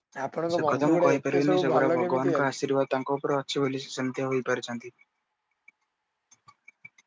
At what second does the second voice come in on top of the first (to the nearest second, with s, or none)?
1 s